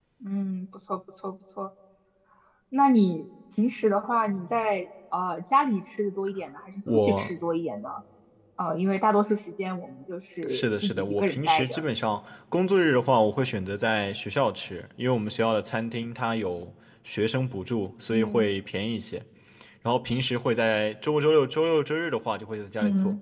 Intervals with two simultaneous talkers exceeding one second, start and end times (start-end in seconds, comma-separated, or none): 10.5-11.8